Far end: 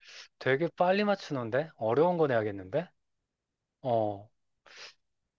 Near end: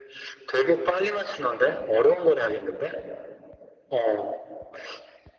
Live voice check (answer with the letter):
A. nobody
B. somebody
A